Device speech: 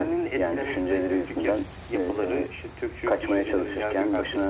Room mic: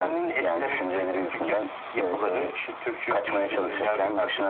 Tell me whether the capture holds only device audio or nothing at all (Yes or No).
Yes